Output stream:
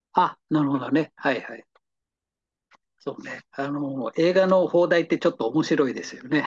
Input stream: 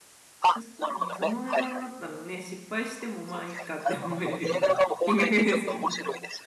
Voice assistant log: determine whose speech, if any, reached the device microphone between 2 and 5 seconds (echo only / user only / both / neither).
both